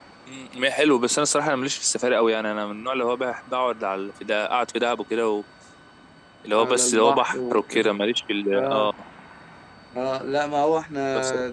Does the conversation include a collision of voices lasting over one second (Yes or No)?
Yes